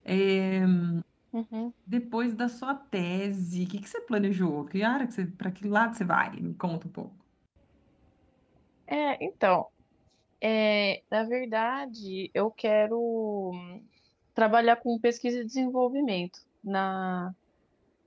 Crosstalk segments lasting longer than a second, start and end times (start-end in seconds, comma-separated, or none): none